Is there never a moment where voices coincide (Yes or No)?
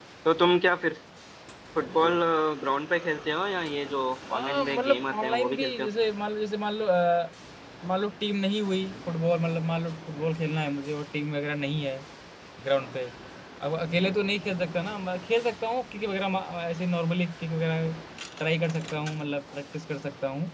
No